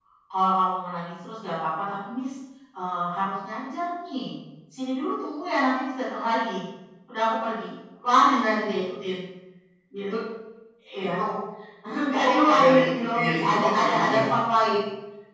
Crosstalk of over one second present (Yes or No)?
Yes